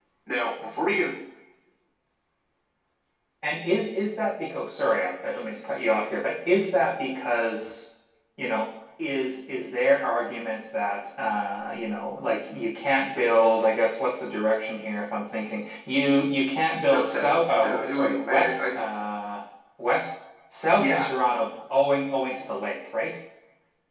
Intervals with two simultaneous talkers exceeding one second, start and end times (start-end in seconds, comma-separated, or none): 16.9-18.6